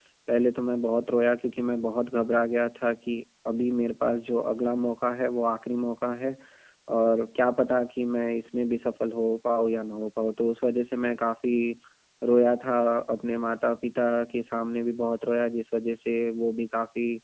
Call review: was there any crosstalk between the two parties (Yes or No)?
No